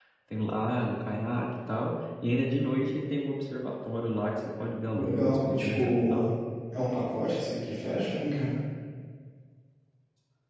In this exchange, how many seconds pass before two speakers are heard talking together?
5.0 s

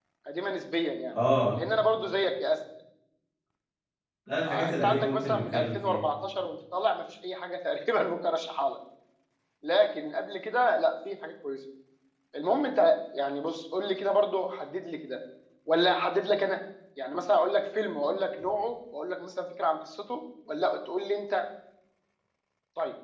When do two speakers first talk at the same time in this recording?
4.5 s

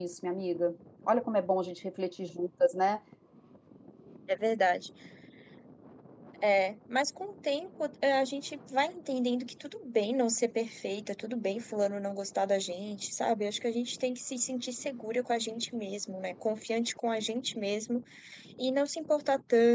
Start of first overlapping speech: none

